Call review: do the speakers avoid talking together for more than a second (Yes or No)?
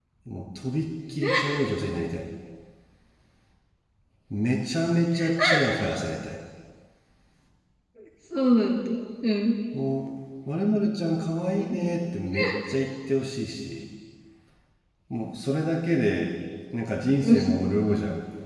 Yes